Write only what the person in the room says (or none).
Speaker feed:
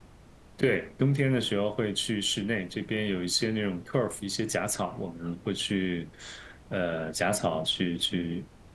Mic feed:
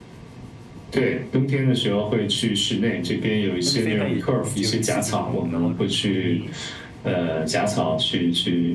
但是飞盘也就只有一次进攻，然后你你